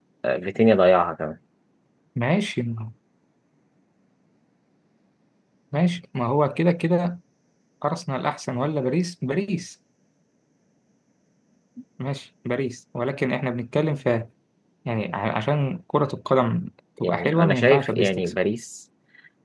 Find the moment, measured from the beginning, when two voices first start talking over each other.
17.0 s

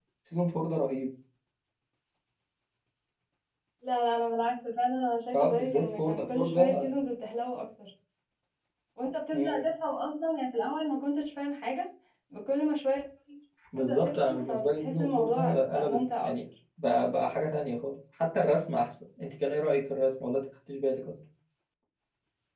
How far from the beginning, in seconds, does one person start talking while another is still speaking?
5.3 s

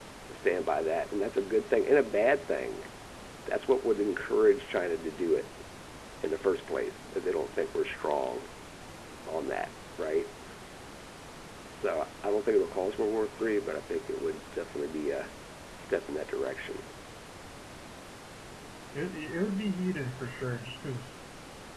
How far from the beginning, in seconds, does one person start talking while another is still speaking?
none

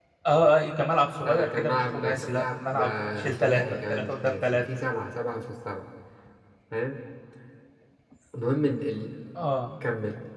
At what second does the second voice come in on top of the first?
1.2 s

